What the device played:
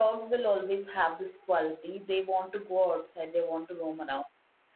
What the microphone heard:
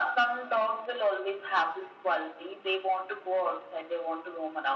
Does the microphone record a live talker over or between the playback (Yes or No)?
No